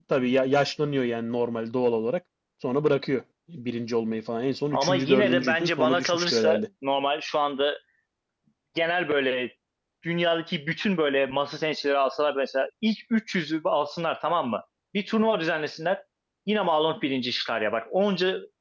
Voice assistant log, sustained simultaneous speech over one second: present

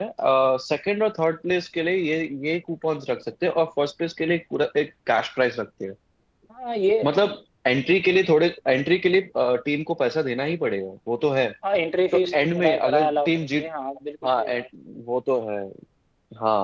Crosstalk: present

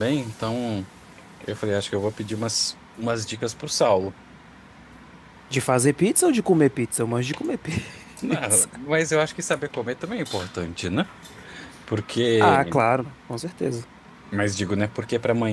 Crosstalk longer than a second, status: none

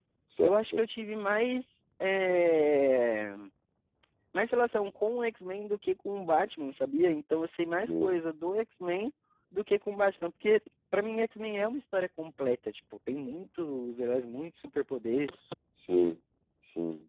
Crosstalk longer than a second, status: none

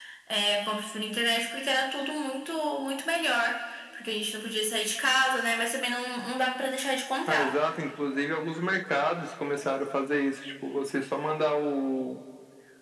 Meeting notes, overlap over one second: none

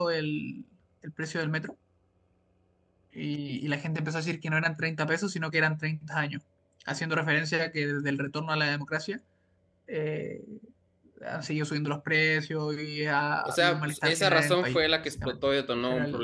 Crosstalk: present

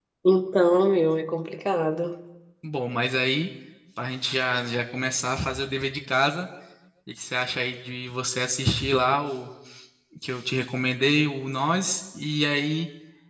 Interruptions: none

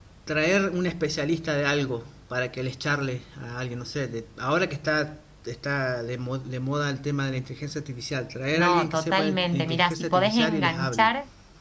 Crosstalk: present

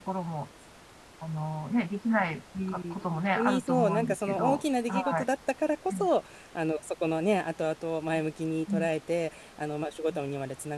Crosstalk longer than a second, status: present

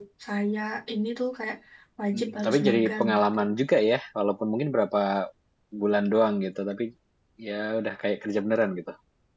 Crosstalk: present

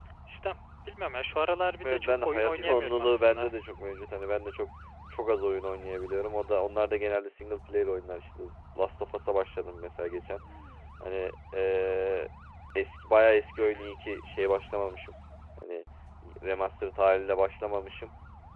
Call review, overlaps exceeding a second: present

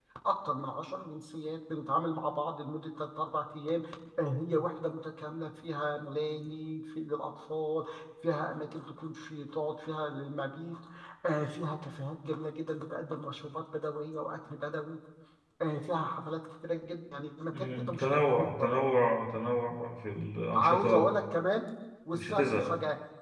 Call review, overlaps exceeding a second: present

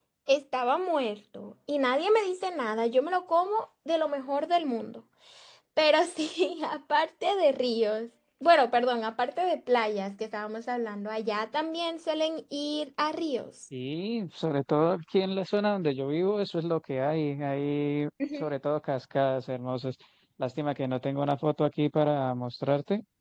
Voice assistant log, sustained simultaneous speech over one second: none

